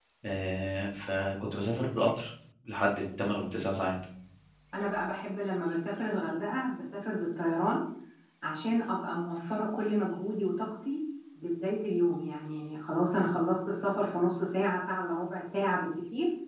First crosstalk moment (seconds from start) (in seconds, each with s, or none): none